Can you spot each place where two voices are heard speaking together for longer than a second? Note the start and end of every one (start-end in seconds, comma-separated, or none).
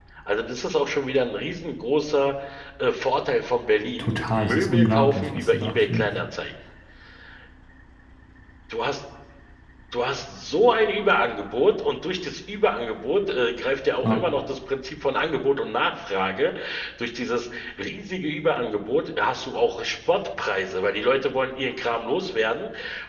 4.0-6.0